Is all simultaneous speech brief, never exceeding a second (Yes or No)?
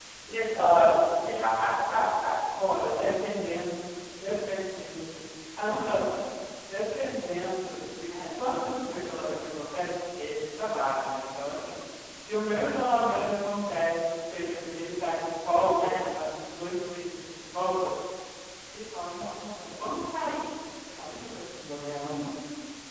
Yes